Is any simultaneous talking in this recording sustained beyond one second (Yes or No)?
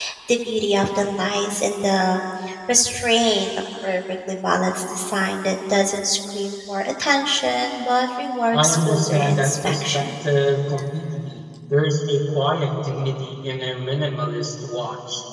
Yes